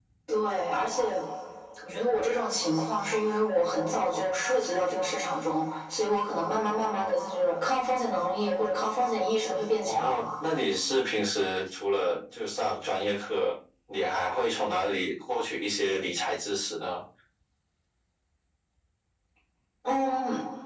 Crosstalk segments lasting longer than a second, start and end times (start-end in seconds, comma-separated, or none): none